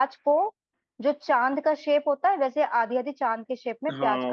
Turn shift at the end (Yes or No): Yes